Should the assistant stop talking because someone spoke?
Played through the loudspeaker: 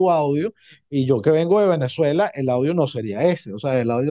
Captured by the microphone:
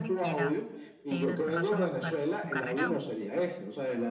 Yes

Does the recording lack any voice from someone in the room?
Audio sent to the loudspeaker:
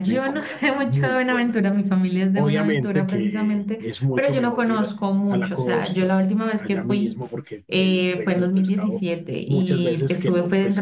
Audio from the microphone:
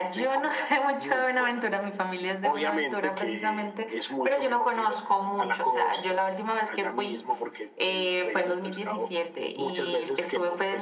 Yes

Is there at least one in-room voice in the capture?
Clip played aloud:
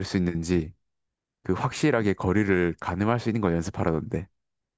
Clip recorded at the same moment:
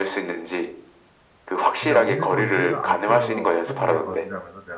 Yes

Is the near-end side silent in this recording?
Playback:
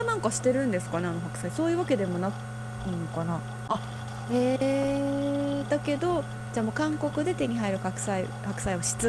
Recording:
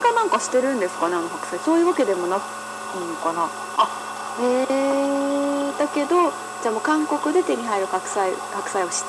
Yes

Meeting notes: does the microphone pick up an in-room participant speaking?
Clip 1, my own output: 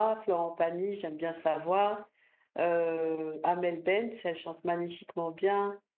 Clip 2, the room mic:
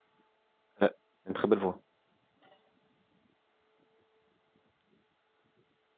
Yes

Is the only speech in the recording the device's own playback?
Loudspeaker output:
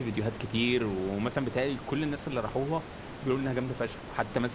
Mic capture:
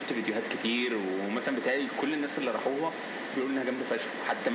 Yes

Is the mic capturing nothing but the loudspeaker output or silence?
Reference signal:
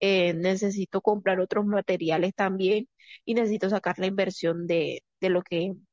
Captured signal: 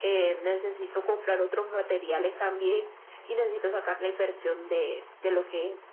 Yes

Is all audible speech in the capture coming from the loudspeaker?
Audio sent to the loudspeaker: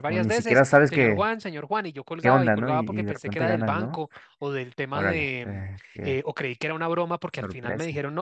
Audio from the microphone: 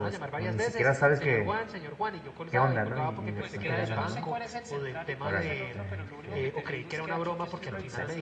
No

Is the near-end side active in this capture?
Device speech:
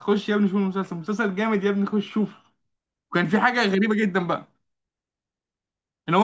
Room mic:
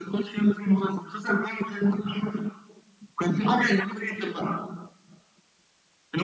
No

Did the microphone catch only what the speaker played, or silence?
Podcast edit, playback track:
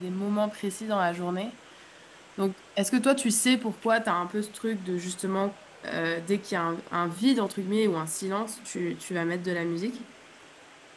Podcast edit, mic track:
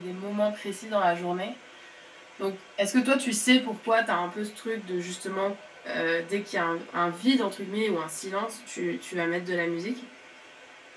Yes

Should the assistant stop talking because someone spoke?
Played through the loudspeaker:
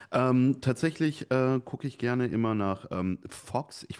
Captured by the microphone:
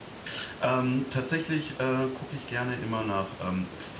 No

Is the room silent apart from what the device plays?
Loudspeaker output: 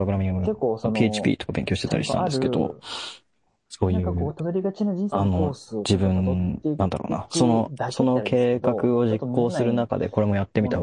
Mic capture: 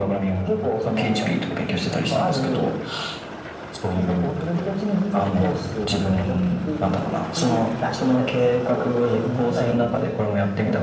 Yes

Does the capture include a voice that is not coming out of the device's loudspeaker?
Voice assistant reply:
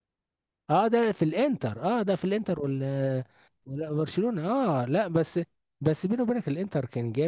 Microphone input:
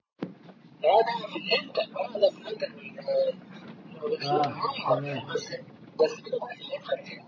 Yes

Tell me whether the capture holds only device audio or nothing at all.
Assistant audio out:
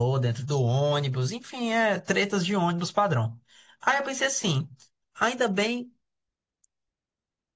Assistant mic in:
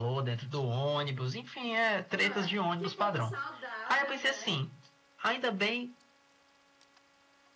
No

